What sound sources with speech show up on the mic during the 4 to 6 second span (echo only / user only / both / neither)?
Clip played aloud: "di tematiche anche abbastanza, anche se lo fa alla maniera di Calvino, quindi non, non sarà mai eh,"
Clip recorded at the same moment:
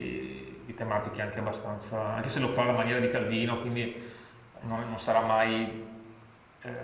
echo only